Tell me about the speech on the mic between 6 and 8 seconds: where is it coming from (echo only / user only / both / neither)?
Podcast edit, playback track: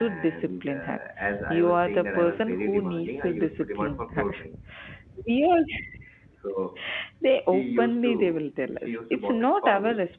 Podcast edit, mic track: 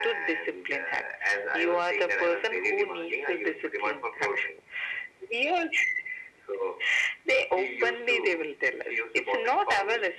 echo only